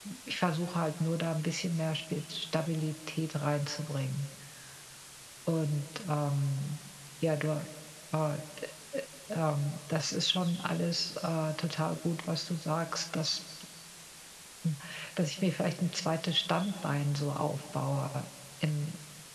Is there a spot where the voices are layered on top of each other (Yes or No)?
No